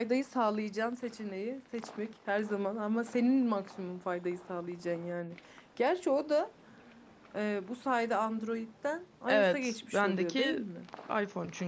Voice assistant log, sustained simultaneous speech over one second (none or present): present